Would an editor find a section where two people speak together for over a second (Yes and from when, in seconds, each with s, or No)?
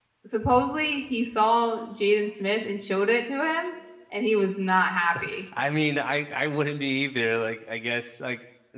No